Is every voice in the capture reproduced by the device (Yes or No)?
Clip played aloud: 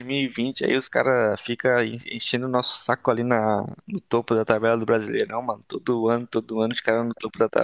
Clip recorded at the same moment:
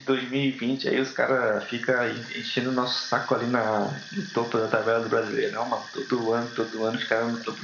Yes